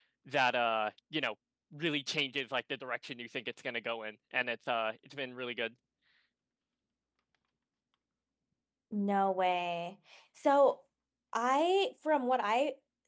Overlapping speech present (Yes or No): No